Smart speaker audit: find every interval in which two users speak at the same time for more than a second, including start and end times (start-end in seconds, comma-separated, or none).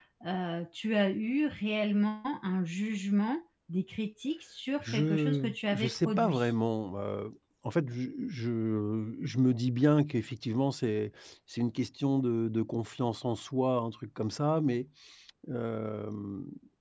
4.8-6.5